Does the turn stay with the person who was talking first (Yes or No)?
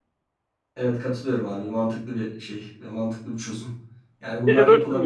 No